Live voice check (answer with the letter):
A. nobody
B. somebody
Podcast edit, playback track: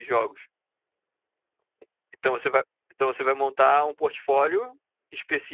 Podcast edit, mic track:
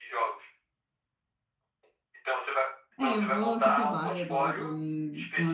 B